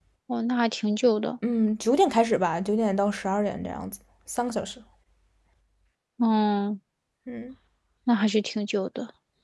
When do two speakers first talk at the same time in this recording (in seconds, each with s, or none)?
none